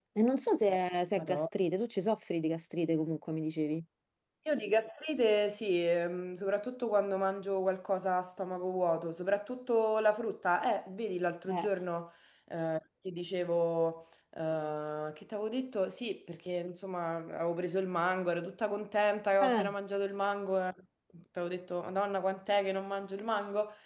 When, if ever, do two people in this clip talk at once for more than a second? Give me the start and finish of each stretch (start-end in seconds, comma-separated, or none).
none